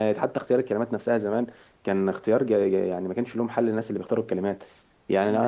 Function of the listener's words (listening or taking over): listening